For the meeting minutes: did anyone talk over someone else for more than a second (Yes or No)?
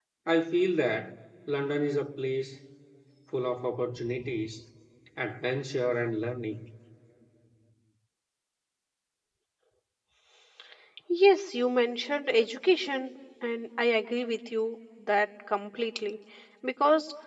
No